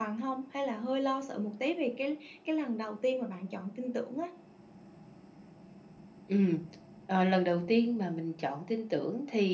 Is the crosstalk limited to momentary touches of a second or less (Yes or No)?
Yes